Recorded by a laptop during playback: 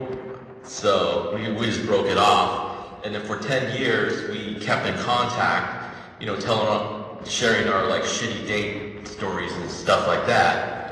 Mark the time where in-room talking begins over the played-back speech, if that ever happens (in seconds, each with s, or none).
none